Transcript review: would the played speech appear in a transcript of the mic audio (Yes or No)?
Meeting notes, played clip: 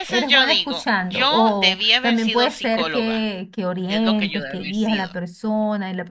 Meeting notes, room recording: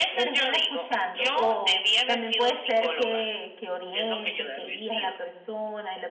Yes